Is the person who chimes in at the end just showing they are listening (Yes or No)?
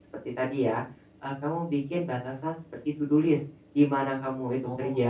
Yes